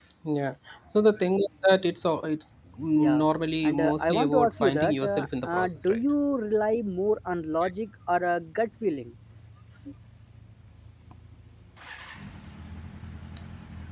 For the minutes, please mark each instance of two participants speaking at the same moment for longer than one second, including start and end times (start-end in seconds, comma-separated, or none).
3.6-6.0